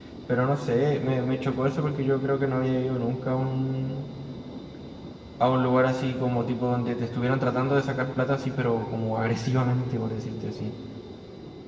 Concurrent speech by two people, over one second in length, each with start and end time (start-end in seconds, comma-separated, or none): none